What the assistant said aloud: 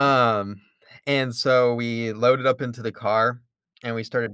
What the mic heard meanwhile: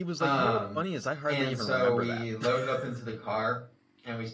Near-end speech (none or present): present